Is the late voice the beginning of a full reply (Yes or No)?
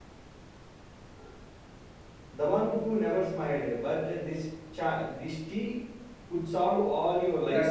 Yes